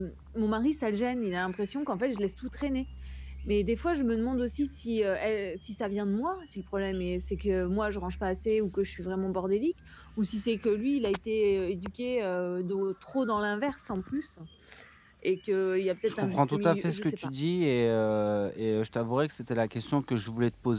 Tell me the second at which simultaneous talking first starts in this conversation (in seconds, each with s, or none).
16.1 s